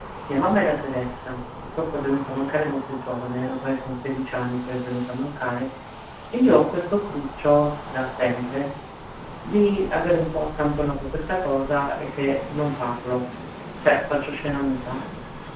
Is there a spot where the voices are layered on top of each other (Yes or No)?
No